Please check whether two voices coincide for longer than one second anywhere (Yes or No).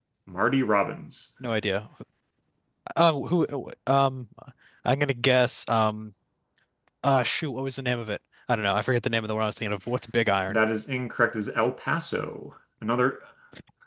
No